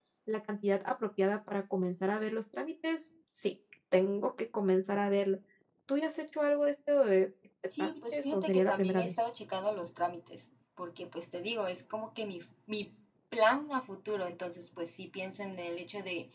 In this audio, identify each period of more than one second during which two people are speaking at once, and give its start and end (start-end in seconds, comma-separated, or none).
7.8-9.2